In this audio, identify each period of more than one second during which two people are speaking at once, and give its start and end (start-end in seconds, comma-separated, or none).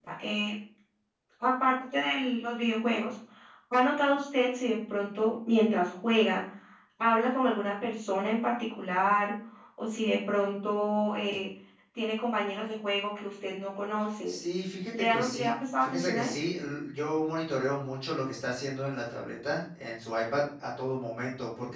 14.9-16.4